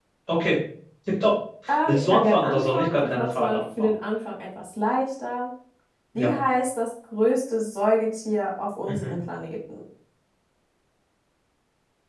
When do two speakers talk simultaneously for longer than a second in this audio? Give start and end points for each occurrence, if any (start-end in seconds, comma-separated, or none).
1.9-3.9